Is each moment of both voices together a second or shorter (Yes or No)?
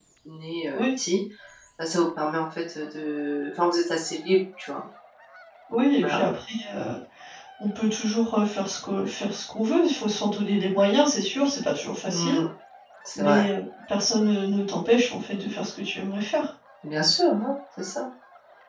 Yes